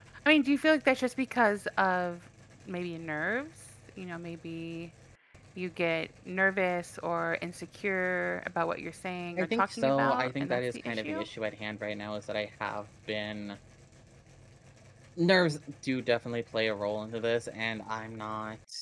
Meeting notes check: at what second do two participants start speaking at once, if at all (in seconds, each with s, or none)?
9.4 s